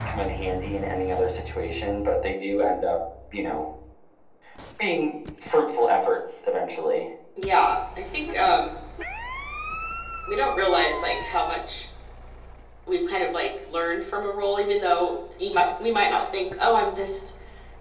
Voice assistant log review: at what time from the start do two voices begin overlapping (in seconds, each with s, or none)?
none